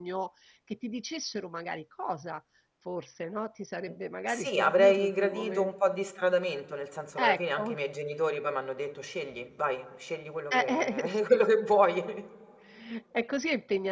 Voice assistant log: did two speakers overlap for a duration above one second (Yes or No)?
Yes